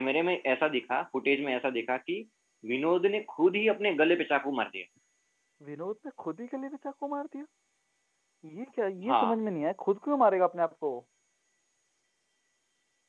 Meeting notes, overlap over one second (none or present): none